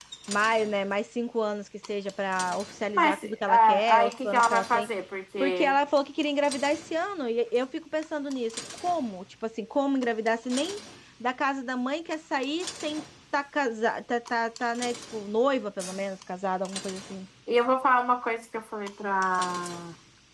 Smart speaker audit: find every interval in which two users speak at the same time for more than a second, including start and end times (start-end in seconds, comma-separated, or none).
2.9-4.9